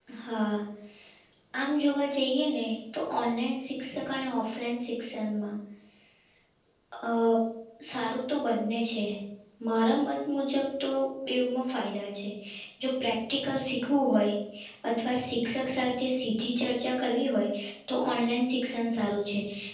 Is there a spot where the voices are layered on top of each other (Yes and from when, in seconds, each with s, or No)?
No